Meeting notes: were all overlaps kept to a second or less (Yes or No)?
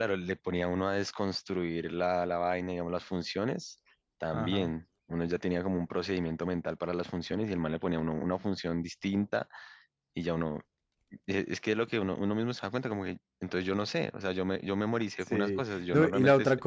No